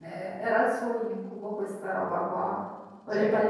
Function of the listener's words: listening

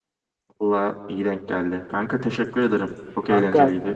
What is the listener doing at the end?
taking over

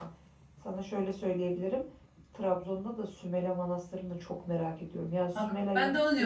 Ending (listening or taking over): taking over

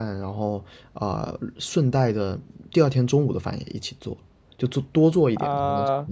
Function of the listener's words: taking over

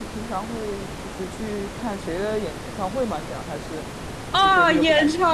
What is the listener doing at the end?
taking over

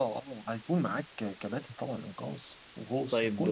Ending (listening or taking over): taking over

